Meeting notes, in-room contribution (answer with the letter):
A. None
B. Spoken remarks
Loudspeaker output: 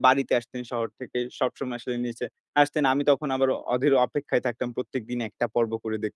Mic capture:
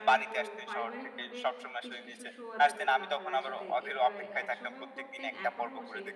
B